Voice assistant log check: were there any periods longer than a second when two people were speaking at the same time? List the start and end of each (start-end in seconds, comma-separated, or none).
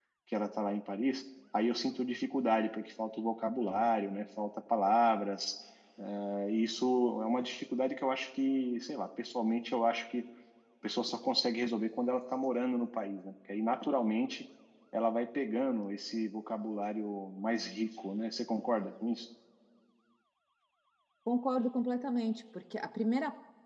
none